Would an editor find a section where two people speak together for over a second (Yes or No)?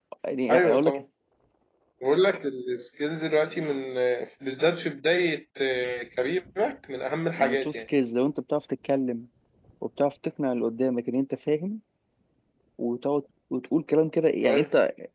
No